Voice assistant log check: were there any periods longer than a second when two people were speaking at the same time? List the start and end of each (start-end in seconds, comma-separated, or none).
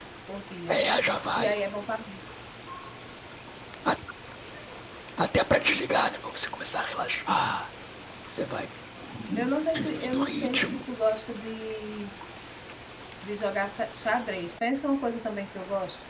9.4-10.9